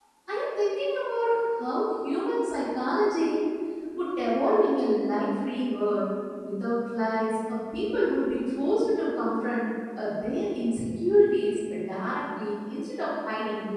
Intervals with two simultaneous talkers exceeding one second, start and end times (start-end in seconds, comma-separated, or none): none